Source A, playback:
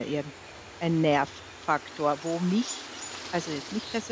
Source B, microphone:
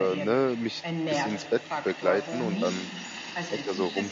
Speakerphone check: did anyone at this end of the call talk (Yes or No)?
Yes